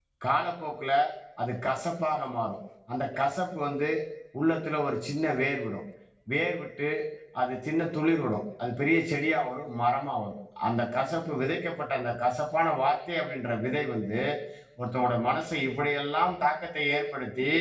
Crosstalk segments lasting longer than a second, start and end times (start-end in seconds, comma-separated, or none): none